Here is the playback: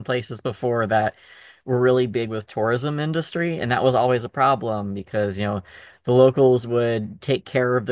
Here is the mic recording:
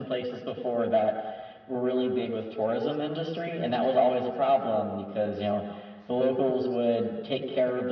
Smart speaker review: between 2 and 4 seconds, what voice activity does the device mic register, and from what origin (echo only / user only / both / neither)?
echo only